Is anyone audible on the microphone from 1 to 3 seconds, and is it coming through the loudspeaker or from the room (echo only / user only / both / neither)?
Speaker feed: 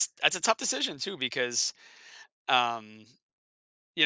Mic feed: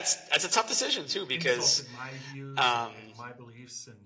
both